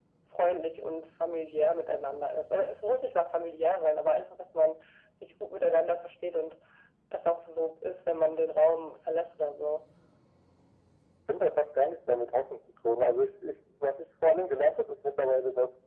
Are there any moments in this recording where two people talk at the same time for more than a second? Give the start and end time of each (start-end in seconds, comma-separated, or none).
none